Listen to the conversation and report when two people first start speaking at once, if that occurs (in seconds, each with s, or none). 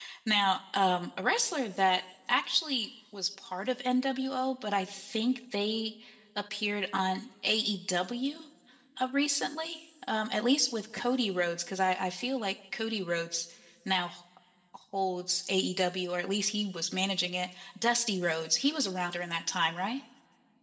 none